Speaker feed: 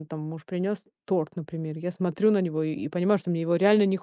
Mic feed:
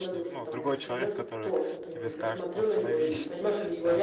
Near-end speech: present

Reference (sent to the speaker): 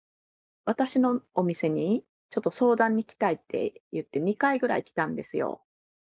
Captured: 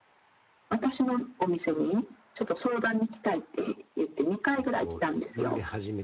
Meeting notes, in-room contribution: present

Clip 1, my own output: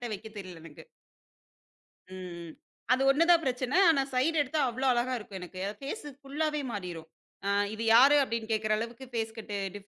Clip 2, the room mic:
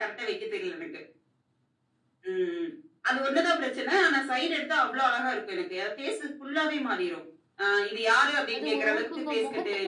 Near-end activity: present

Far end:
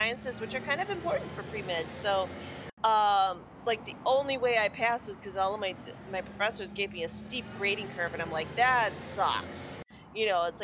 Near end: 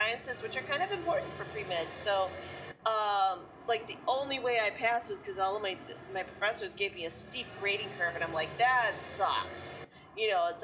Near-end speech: none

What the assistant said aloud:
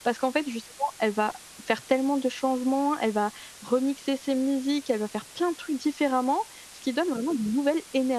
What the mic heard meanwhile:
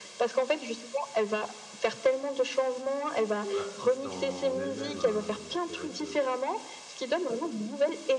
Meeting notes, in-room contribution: present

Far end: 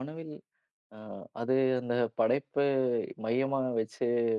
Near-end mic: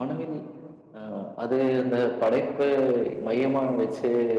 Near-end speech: none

